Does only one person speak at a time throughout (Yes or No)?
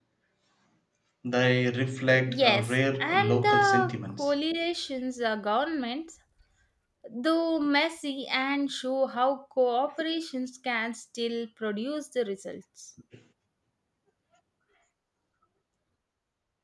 No